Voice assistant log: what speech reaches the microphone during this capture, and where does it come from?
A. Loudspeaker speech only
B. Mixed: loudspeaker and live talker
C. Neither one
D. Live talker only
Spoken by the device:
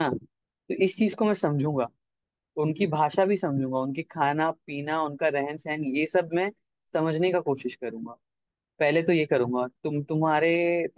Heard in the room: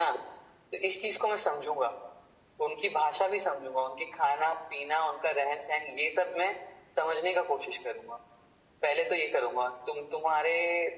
A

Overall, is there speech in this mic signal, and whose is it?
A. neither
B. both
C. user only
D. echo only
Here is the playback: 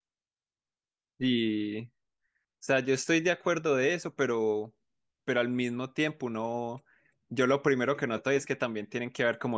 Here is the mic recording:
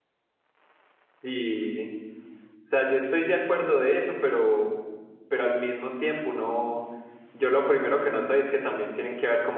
D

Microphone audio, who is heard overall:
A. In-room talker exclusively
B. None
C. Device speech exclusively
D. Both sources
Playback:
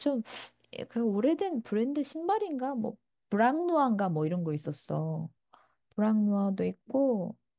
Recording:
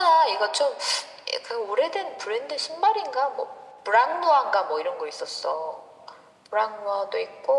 C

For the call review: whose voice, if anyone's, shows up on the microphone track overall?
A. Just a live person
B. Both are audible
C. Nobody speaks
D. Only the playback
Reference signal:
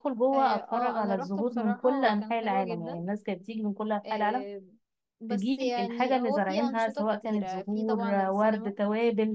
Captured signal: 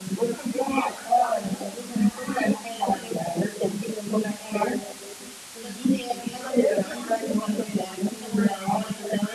D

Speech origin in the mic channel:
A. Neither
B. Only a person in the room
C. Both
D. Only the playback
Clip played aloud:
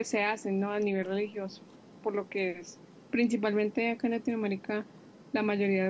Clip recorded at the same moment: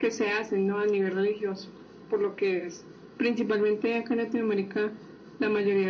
D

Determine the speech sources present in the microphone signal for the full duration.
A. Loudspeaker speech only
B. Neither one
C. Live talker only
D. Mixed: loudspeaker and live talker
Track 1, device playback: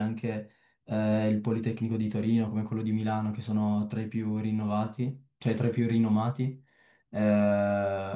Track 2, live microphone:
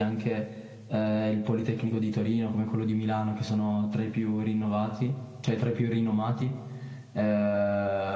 A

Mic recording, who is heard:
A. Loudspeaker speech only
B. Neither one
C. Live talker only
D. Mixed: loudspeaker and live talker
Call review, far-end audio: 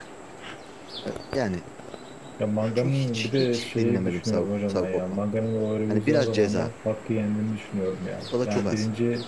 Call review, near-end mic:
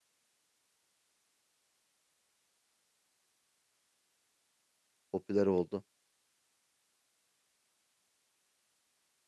C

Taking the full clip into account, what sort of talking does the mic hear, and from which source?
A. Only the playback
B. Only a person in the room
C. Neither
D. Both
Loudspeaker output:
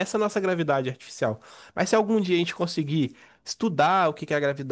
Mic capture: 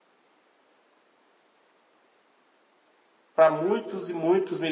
B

